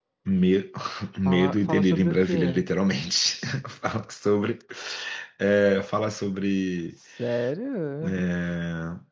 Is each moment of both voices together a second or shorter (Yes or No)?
No